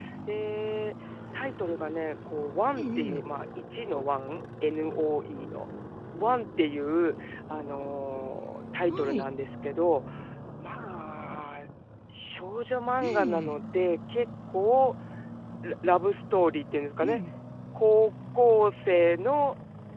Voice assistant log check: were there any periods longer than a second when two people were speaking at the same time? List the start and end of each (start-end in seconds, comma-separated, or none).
none